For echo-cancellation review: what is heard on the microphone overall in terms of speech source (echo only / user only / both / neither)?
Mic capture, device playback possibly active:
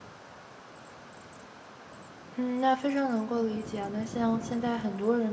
user only